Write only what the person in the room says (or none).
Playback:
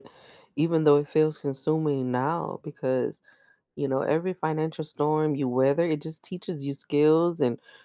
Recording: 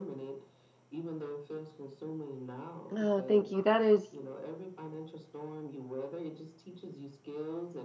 Oh, thank you. That is